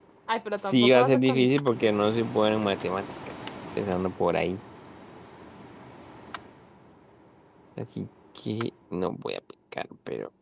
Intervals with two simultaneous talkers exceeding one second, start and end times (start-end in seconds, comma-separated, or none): 0.7-1.9